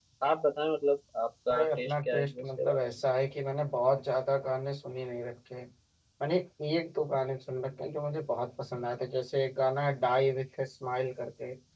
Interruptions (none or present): present